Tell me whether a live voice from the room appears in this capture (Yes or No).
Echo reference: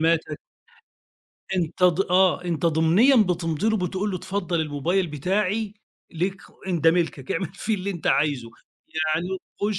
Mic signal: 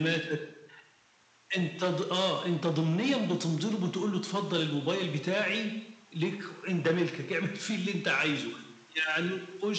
No